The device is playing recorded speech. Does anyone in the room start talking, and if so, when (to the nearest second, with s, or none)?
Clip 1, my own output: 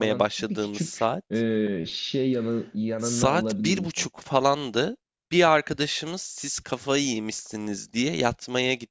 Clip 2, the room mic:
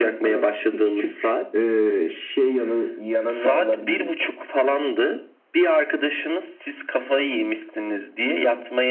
none